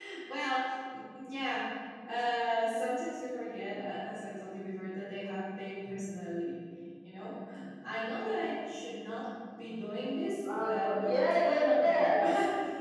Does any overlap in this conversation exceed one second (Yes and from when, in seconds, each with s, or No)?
Yes, from 10.4 s